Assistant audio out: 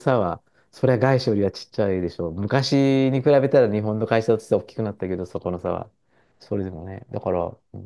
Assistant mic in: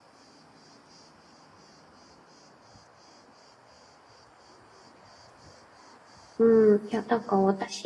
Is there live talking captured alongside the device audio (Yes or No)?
Yes